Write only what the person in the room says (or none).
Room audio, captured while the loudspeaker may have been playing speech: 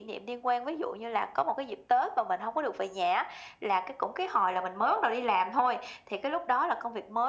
none